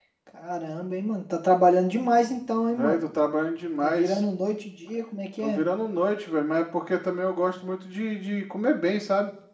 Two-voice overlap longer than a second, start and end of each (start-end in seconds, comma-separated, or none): none